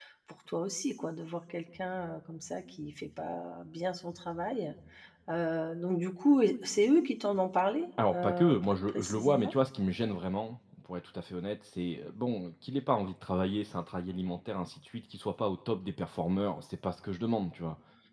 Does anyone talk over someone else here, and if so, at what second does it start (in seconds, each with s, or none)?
8.0 s